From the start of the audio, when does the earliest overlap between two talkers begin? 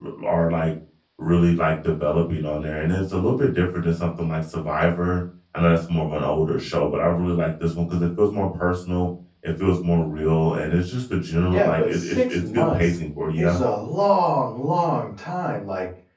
11.5 s

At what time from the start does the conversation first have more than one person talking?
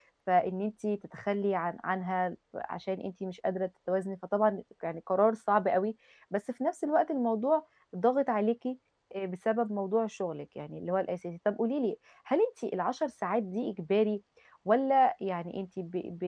none

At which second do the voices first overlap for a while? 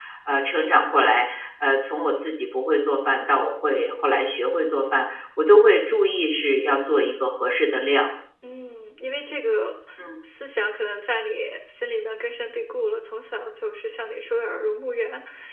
none

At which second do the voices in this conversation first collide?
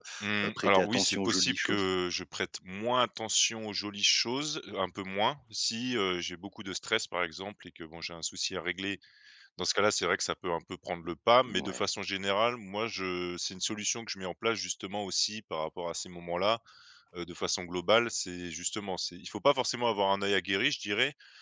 0.6 s

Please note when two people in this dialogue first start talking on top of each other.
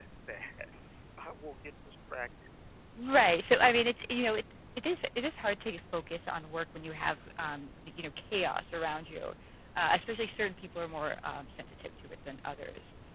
none

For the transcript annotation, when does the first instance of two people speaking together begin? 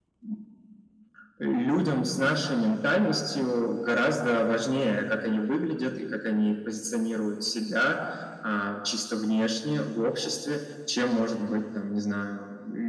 none

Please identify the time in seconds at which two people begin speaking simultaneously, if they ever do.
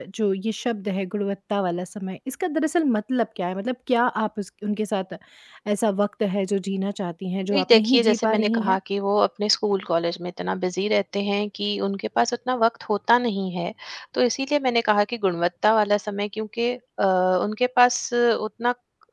7.5 s

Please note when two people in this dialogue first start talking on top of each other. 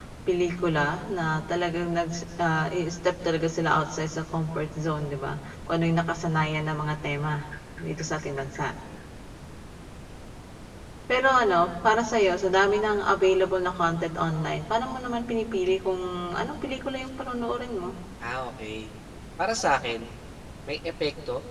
none

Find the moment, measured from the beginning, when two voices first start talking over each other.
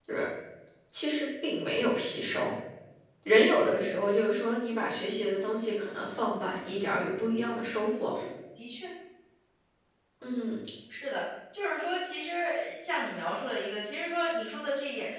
none

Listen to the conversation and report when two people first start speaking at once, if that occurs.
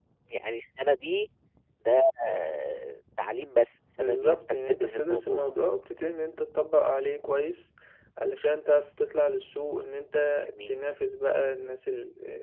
4.0 s

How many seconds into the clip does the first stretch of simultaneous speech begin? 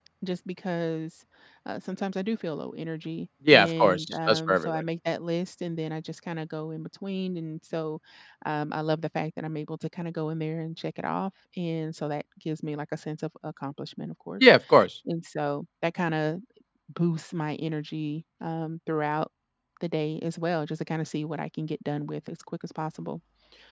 3.5 s

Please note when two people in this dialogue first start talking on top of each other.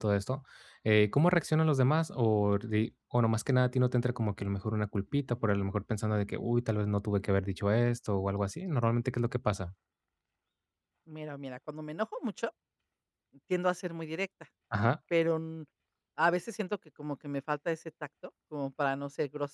none

